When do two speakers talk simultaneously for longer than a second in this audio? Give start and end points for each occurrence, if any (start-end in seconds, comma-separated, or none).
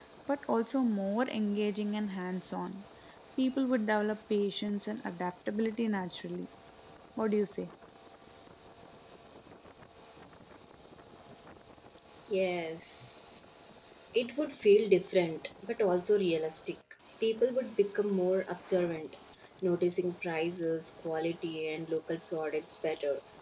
none